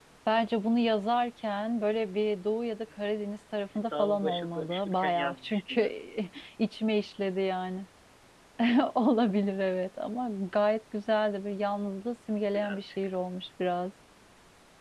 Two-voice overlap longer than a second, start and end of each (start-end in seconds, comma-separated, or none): 3.8-5.8